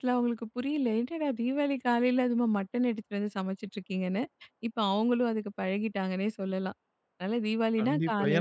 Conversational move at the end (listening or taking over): taking over